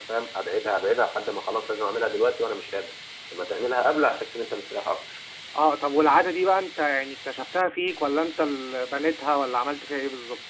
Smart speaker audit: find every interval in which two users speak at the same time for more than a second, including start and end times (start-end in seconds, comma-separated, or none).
none